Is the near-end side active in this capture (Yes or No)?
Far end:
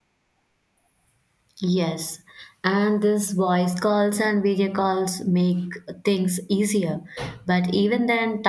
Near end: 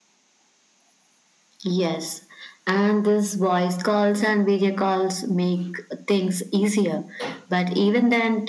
No